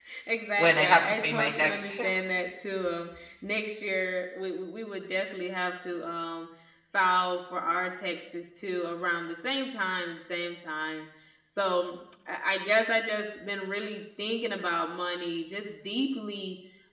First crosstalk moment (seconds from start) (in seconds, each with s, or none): 0.6 s